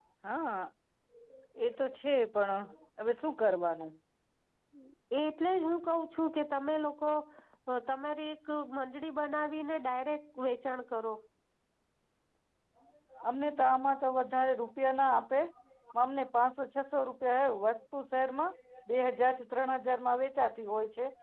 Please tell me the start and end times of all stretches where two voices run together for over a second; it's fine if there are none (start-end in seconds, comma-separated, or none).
none